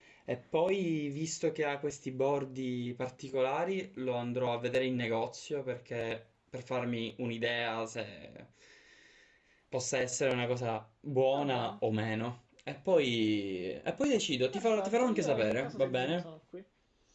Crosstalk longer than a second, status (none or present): present